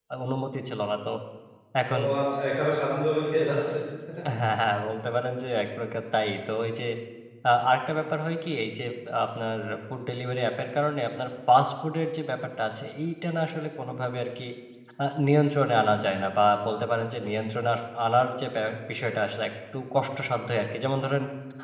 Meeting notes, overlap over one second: none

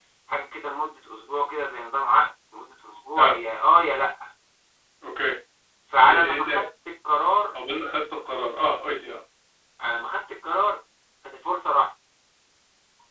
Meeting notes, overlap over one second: none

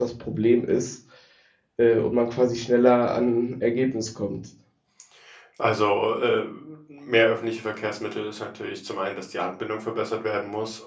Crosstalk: none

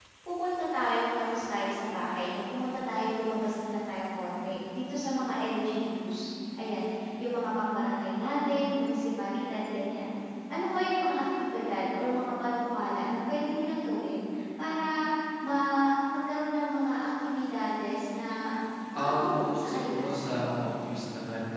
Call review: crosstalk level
present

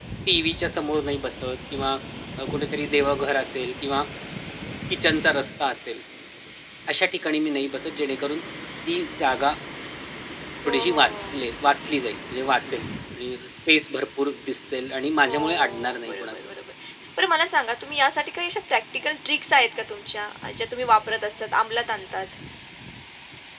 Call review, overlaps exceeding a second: present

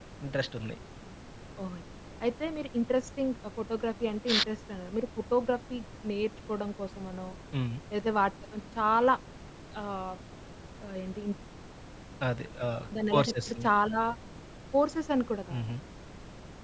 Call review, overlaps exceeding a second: none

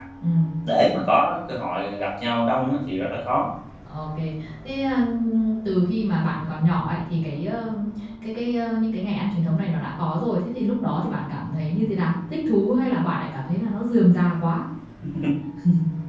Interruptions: none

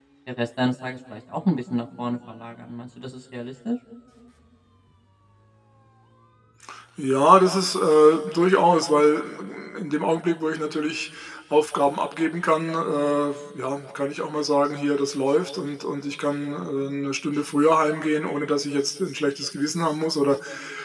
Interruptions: none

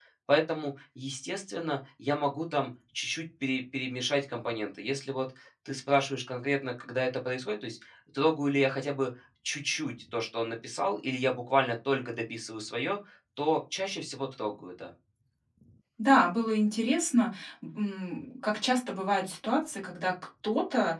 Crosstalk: none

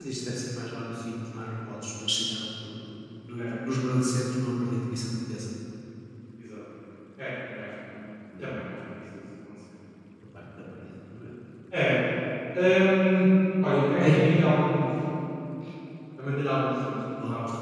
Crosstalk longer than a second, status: none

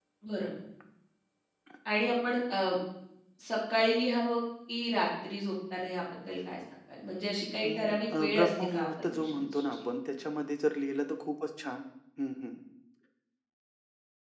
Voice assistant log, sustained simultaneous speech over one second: present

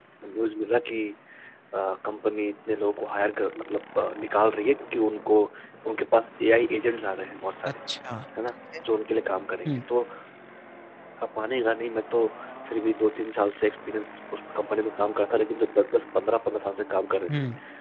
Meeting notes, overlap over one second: none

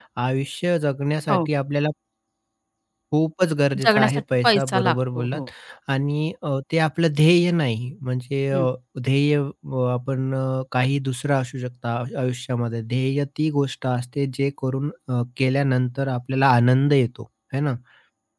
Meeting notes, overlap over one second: present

